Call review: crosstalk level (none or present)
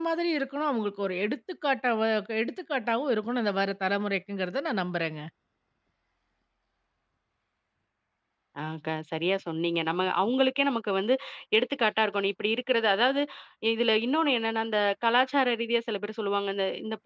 none